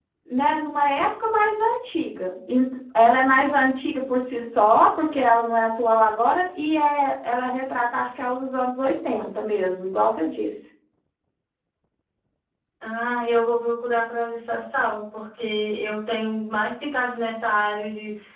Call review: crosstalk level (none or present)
none